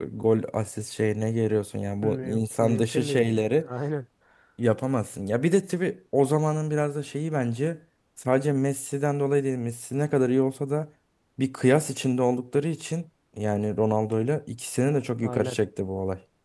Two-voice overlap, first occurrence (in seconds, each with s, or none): 2.0 s